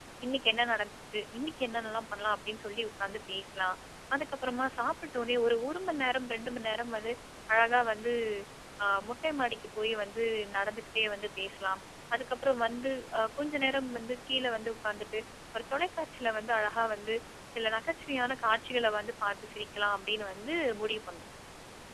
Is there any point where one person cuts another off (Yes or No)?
No